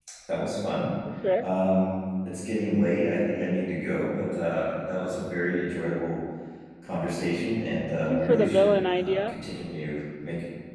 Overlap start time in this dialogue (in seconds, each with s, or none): 7.9 s